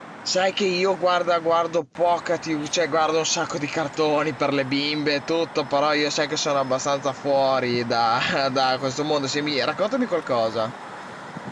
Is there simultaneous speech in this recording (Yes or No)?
No